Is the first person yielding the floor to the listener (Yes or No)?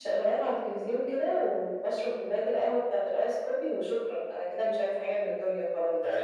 Yes